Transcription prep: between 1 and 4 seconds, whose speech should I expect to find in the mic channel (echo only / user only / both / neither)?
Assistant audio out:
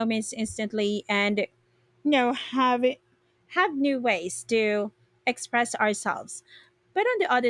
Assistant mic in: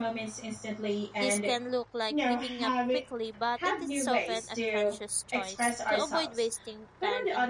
both